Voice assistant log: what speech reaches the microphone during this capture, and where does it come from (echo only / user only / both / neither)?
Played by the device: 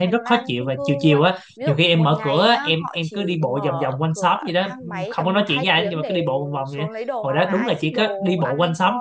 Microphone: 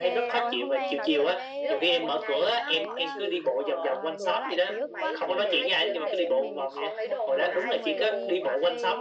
both